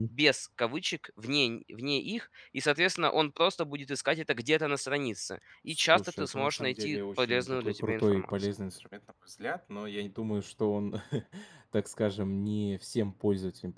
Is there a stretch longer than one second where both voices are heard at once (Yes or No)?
Yes